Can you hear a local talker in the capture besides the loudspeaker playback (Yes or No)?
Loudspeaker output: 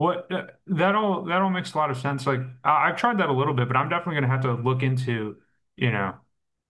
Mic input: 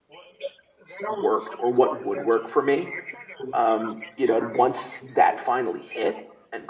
Yes